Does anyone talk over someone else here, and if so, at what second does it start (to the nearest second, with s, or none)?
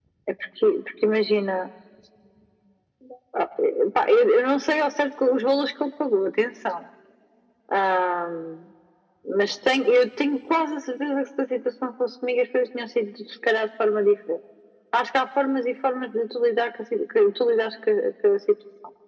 none